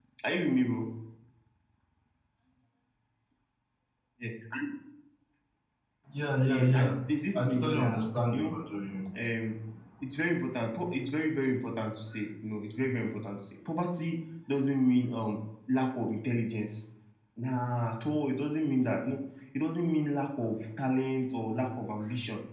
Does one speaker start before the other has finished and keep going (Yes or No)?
Yes